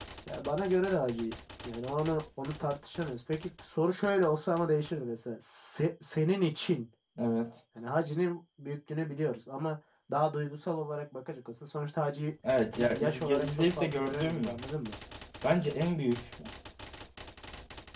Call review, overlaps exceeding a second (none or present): present